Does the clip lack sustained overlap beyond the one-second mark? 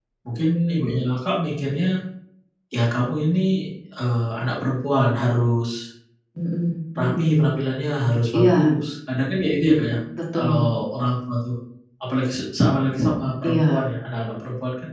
Yes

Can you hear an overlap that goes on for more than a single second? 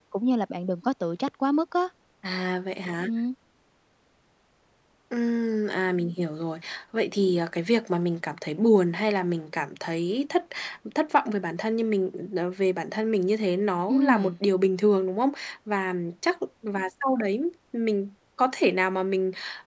No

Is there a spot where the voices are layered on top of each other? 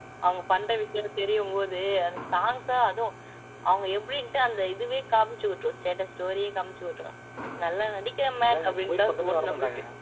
Yes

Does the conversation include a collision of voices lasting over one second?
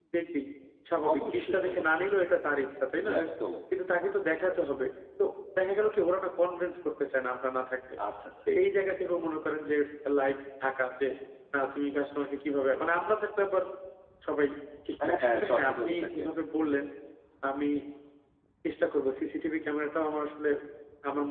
Yes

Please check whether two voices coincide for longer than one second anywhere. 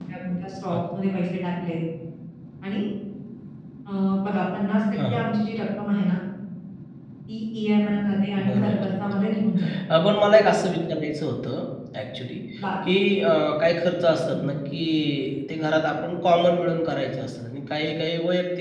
Yes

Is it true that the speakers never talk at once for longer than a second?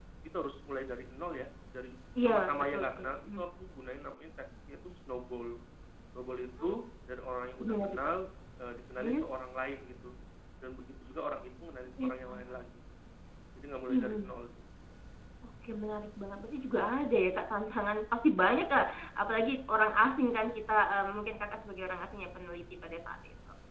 No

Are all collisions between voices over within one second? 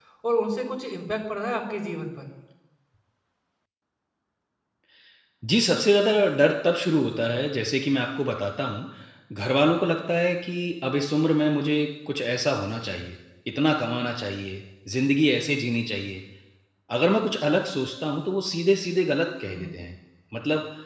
Yes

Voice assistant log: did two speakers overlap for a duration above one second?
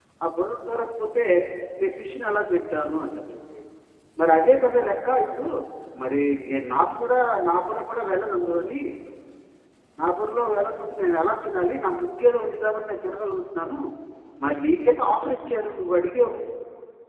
No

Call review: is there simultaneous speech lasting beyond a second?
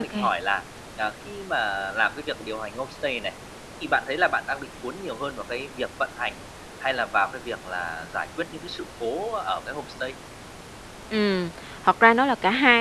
No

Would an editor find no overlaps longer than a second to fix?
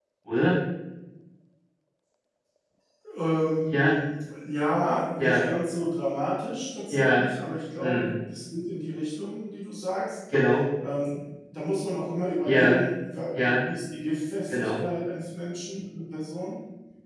Yes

